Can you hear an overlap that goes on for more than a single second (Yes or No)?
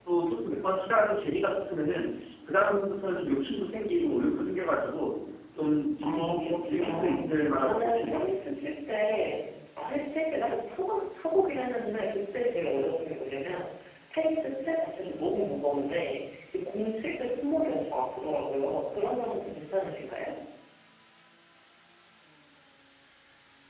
Yes